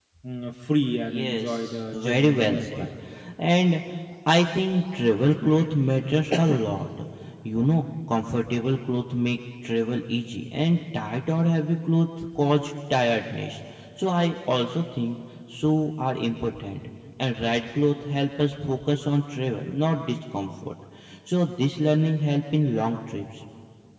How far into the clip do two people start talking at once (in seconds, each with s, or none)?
1.1 s